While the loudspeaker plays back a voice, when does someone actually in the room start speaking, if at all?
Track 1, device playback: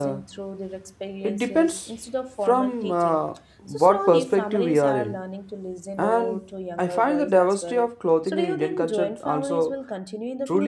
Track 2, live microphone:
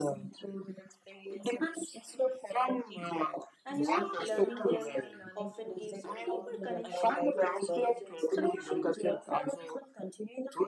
3.6 s

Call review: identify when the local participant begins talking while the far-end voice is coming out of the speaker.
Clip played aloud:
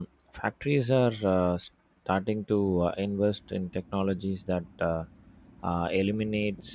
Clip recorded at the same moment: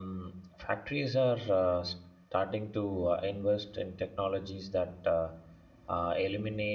none

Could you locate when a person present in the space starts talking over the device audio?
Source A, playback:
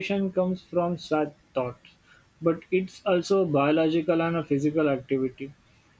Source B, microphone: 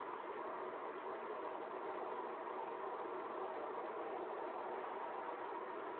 none

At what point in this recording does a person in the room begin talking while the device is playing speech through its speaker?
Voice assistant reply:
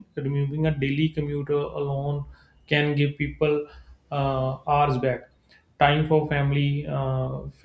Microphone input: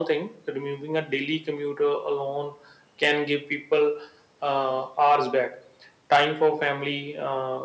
none

